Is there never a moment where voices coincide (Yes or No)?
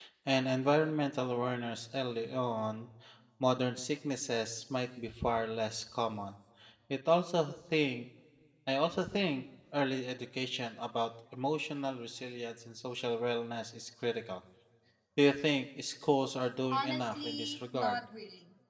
No